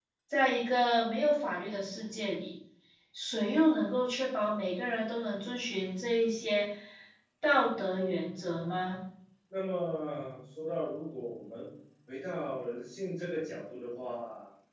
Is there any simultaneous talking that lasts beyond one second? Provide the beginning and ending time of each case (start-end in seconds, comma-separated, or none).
none